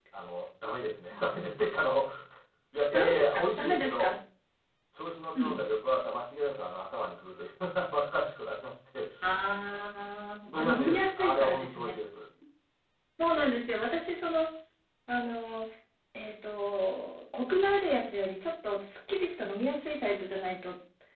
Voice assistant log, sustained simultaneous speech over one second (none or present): present